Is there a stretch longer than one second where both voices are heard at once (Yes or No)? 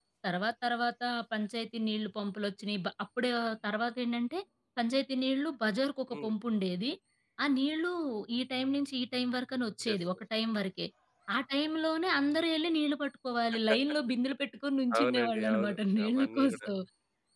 Yes